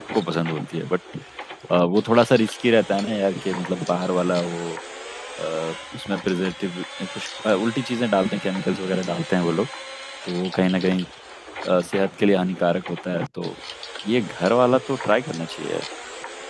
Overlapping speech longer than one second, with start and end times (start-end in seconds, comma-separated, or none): none